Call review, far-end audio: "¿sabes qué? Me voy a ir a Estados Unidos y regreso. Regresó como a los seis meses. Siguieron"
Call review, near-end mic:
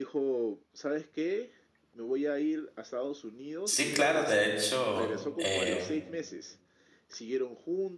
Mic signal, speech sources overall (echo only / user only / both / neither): both